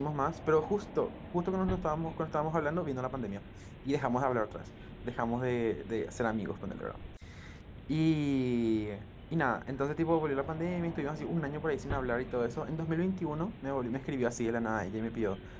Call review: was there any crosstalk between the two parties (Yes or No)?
No